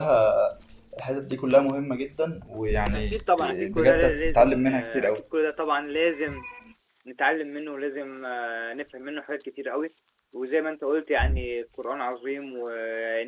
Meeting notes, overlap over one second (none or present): present